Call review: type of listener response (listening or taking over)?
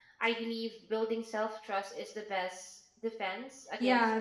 taking over